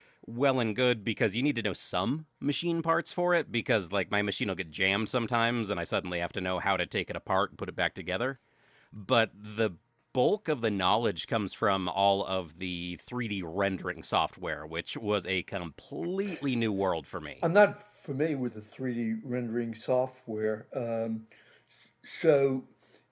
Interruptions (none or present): none